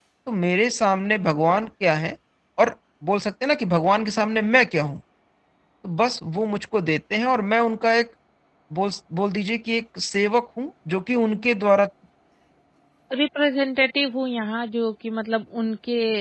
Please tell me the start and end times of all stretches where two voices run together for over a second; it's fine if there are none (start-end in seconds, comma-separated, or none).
none